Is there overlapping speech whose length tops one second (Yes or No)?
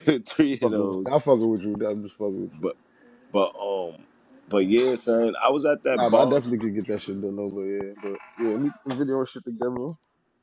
No